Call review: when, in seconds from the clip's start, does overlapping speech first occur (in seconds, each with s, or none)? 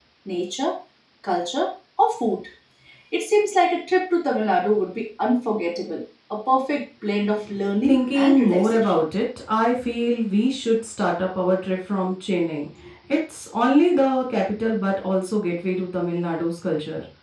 7.8 s